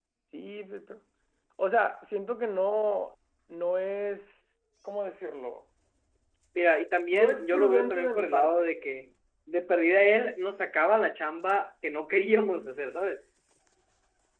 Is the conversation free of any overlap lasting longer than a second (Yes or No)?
No